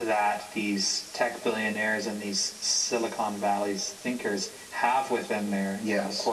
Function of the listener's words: listening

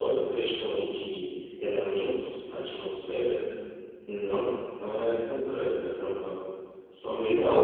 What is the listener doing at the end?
taking over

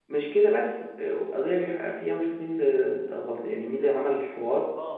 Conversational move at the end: taking over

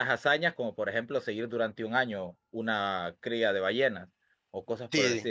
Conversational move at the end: taking over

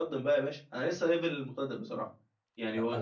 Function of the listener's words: taking over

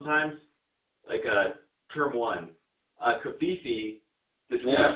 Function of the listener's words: listening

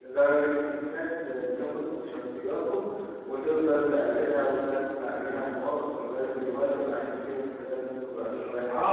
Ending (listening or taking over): taking over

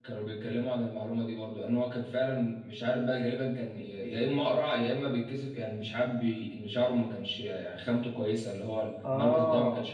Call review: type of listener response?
listening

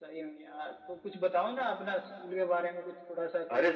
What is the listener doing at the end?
taking over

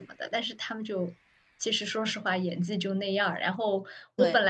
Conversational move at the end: listening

